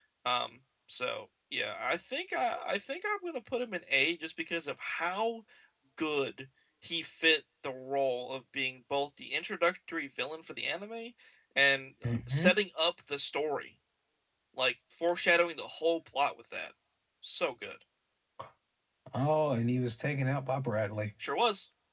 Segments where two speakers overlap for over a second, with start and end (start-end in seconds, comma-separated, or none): none